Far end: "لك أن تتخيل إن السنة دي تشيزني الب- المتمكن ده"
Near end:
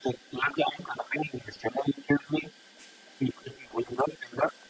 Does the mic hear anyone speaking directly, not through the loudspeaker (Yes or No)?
No